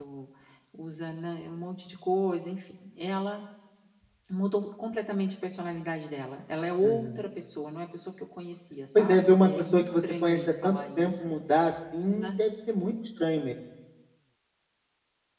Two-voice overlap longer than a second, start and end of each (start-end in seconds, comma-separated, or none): 8.9-11.3